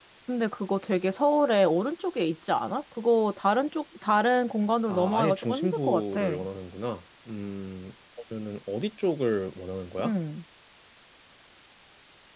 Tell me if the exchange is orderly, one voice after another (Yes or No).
No